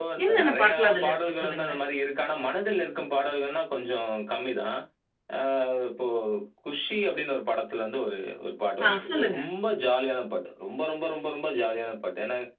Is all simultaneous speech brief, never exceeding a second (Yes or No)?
No